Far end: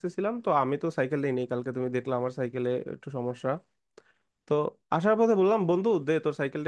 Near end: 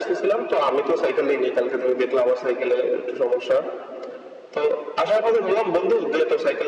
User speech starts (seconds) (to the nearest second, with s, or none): none